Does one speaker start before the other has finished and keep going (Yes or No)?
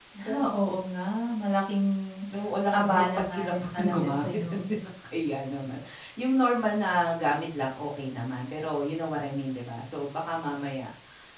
Yes